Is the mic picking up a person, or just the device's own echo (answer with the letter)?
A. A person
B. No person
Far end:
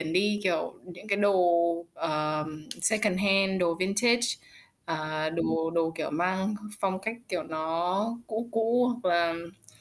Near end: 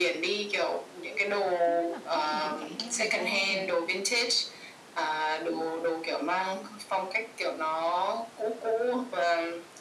A